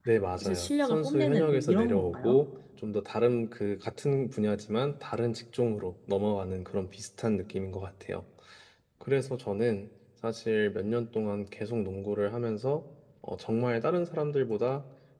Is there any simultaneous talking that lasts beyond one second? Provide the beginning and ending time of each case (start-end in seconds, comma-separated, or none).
0.5-2.4